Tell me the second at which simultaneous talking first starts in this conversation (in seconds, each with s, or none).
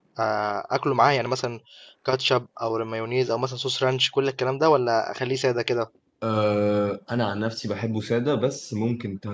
none